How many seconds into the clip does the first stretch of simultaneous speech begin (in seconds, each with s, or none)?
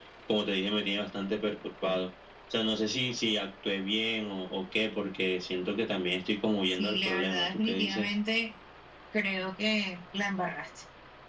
6.7 s